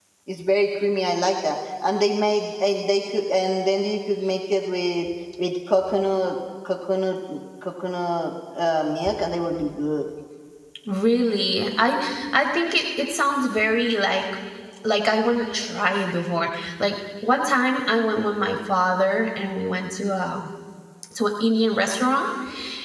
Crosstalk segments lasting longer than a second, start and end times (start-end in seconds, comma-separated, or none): none